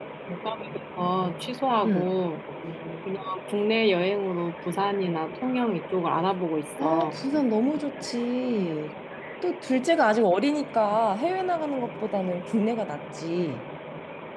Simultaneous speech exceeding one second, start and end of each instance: none

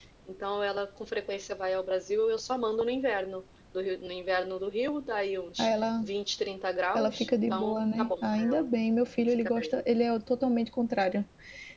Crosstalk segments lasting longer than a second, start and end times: 6.9-8.7

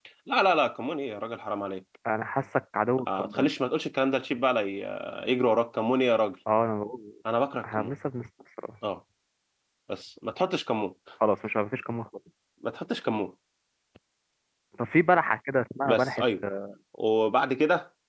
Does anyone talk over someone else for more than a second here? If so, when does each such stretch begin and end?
none

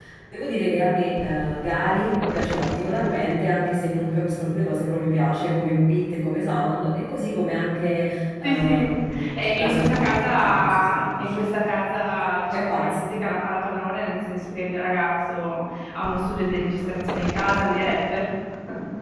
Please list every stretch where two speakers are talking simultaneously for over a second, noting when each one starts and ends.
9.4-11.4

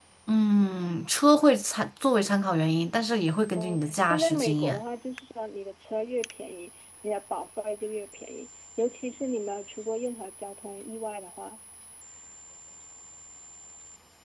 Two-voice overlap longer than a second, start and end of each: 3.5-4.8

